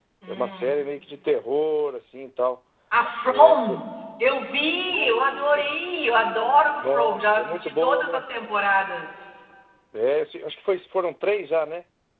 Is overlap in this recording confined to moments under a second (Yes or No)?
No